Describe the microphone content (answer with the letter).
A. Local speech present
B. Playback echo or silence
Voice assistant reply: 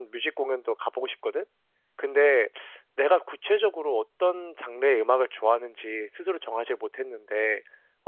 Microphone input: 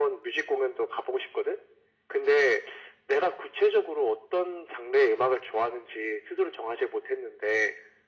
B